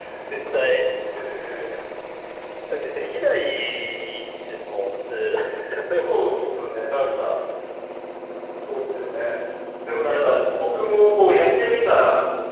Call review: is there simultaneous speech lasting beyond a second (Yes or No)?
Yes